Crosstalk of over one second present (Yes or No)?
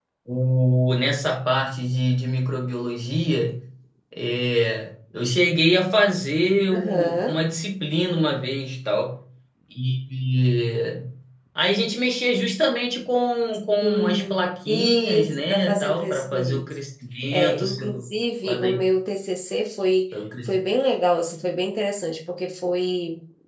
Yes